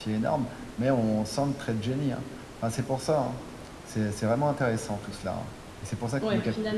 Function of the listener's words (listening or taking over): taking over